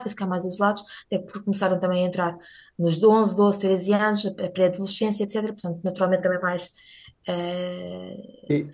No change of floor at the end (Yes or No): Yes